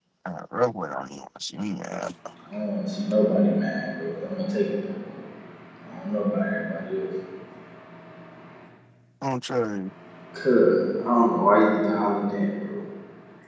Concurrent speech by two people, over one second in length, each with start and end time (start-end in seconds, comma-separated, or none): none